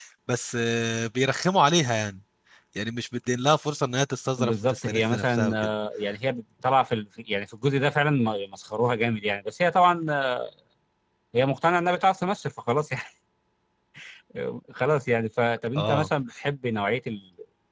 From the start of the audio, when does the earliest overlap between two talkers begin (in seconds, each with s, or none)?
4.4 s